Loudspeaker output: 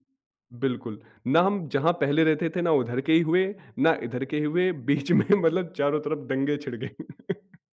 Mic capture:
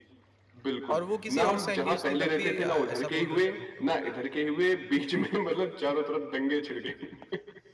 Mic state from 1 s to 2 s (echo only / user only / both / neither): both